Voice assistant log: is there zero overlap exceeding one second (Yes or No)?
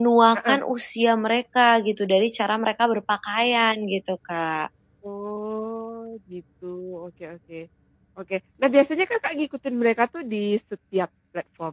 Yes